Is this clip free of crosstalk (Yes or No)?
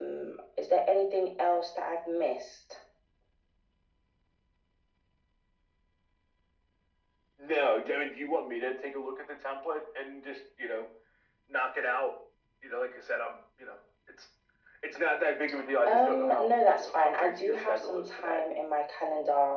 No